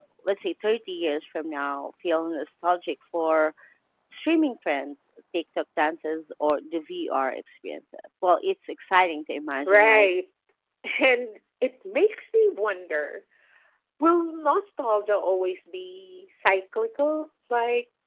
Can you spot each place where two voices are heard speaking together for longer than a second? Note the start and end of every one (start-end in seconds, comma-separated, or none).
none